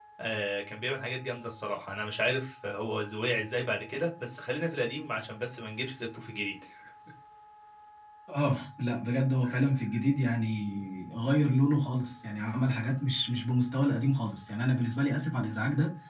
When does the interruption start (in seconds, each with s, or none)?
none